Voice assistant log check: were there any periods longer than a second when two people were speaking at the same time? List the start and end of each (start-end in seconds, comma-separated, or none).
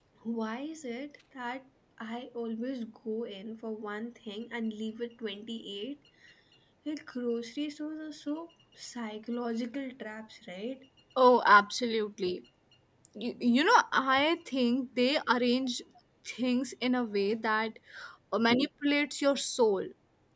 none